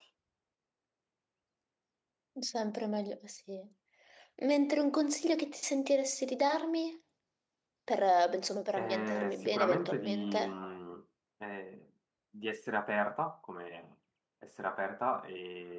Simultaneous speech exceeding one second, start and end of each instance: 8.8-10.5

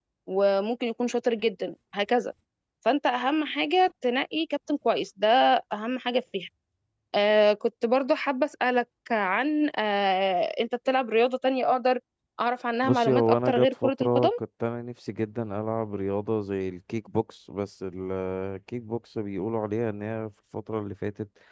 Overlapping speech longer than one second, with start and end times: 12.8-14.3

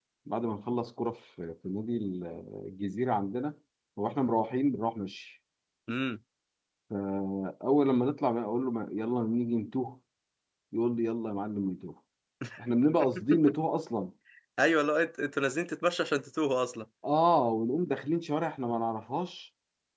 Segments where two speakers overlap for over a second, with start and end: none

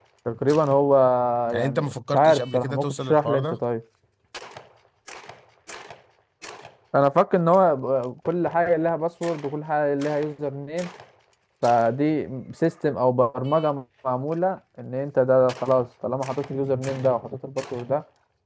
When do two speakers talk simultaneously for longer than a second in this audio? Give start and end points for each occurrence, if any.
1.6-3.6

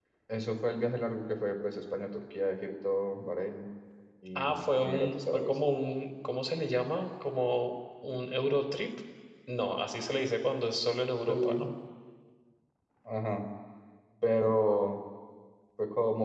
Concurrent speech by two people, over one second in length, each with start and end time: 4.3-5.6

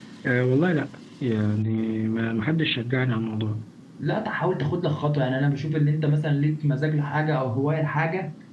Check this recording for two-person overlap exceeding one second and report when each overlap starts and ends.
none

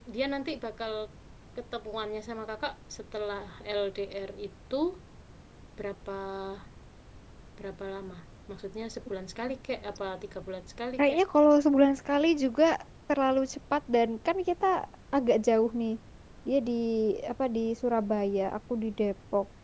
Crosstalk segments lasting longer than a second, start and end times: none

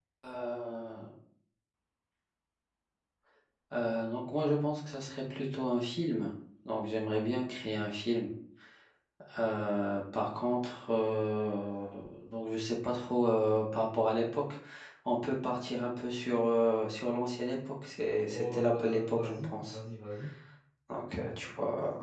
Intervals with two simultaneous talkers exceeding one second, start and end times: 18.3-19.8

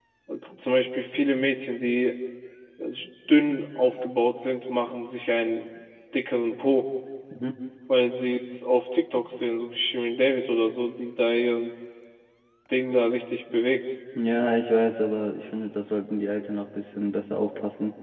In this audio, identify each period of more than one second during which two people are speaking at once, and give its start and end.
none

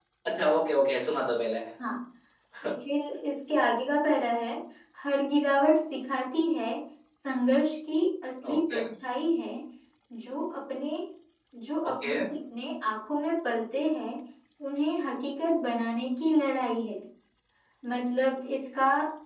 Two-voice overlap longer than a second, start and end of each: none

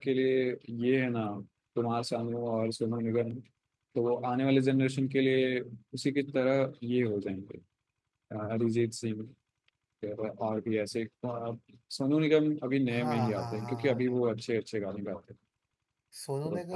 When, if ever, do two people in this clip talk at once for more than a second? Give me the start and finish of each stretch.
12.9-14.2

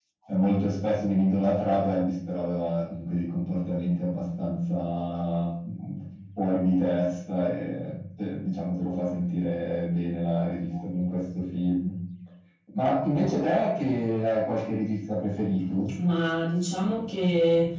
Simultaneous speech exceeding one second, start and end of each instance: none

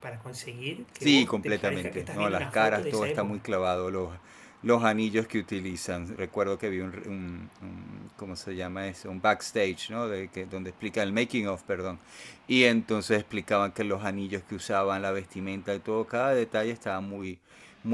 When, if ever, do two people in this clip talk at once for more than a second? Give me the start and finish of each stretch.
1.0-3.5

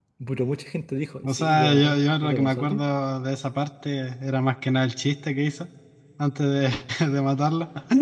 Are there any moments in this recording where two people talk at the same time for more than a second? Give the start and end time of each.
1.2-2.8

